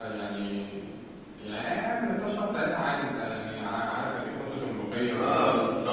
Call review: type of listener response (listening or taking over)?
taking over